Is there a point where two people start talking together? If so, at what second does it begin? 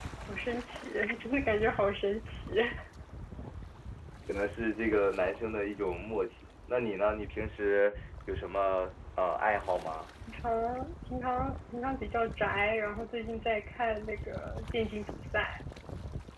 none

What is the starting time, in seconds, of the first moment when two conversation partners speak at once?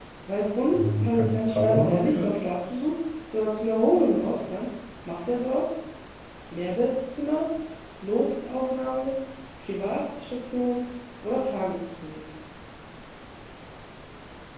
0.7 s

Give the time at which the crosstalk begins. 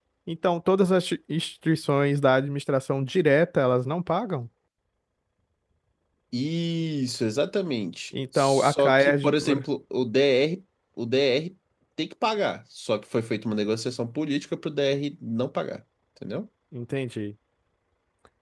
8.1 s

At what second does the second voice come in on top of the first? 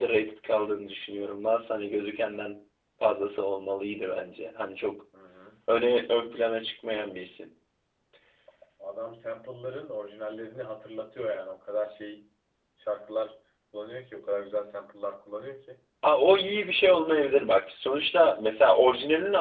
none

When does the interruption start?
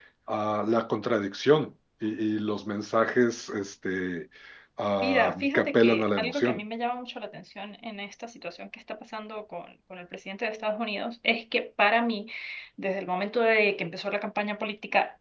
5.0 s

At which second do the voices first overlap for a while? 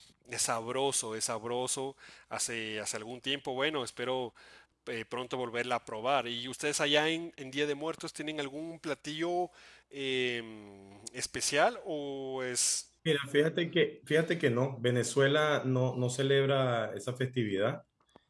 none

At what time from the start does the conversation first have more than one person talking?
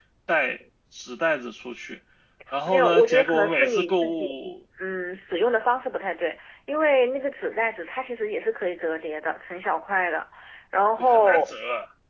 2.7 s

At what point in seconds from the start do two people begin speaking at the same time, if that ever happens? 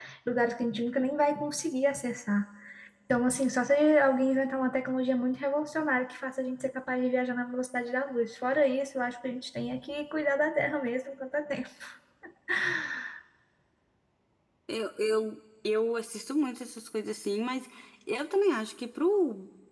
none

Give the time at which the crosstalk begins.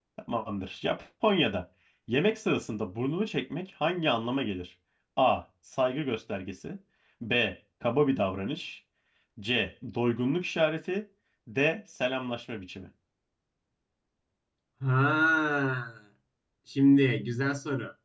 none

